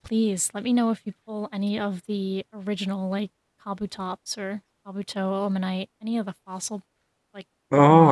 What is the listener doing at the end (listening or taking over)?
taking over